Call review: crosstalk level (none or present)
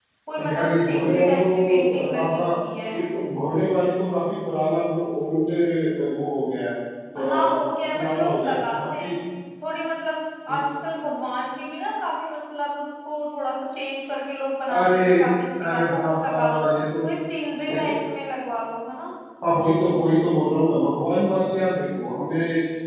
present